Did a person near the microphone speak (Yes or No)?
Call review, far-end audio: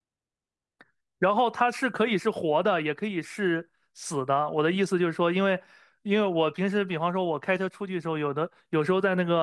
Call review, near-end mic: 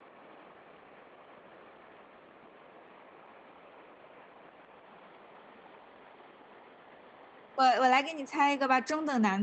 Yes